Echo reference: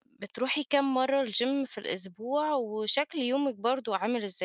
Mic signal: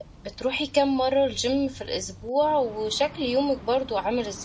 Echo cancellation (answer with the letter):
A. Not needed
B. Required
B